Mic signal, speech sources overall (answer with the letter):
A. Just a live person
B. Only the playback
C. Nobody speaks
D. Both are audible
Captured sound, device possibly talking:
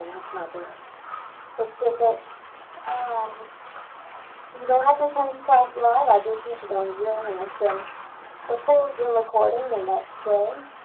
B